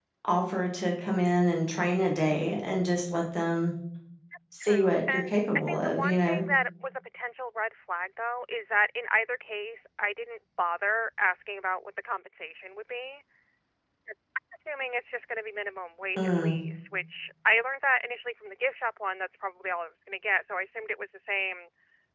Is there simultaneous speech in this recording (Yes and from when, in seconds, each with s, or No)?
Yes, from 4.6 s